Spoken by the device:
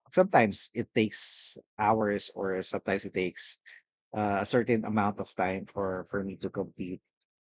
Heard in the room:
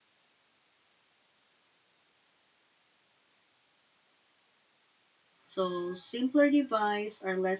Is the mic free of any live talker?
No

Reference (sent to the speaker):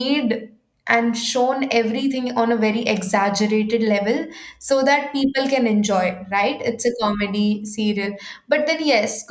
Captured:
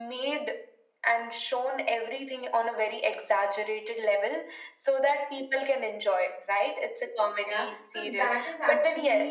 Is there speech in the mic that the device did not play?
Yes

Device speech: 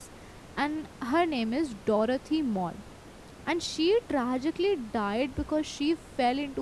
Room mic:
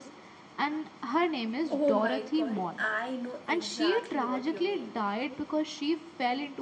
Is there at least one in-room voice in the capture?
Yes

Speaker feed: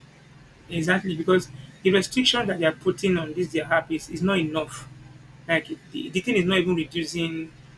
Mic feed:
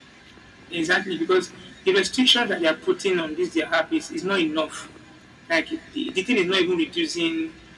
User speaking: No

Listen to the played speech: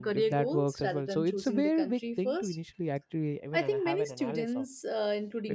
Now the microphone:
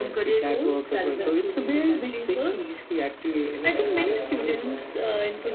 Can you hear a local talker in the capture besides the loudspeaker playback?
Yes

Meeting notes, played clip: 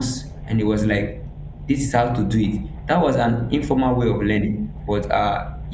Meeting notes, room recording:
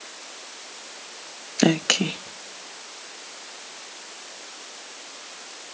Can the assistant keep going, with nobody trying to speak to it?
No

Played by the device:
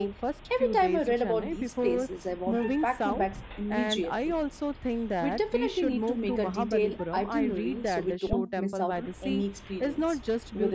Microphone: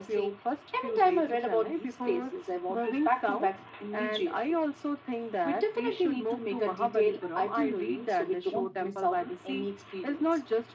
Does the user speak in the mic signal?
No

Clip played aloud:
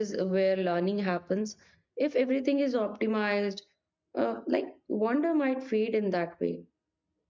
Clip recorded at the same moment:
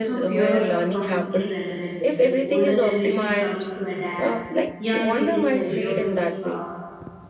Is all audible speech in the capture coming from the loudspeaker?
No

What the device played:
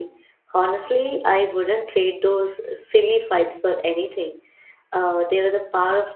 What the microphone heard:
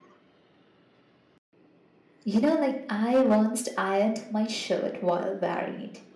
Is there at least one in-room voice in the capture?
Yes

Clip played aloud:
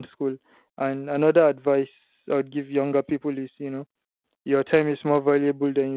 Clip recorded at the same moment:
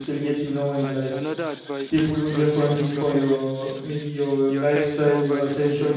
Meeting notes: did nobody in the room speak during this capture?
No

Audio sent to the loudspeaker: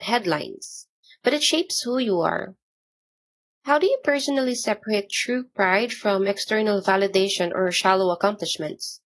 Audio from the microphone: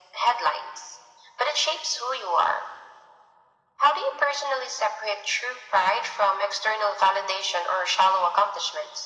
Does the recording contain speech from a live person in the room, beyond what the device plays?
No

